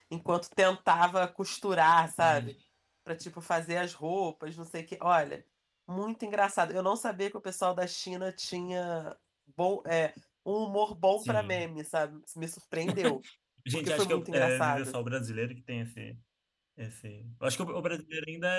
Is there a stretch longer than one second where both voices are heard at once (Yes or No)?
Yes